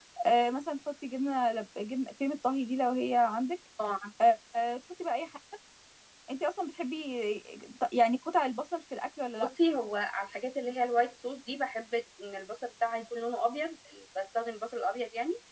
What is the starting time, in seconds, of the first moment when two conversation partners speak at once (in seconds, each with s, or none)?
none